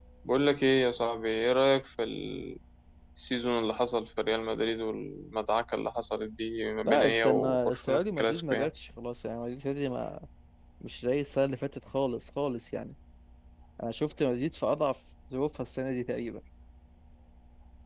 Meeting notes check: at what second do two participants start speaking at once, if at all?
6.8 s

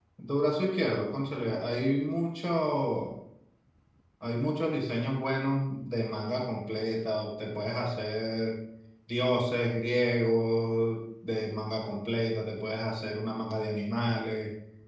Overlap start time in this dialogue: none

